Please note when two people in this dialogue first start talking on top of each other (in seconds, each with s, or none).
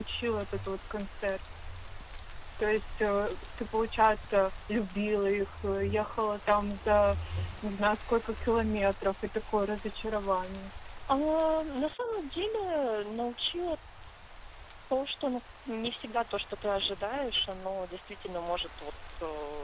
none